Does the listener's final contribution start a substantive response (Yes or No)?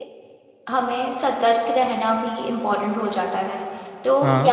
No